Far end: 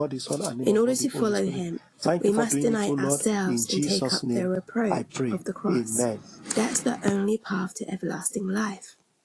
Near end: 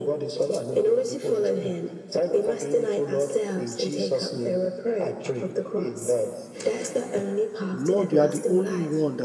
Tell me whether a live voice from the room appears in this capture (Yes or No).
Yes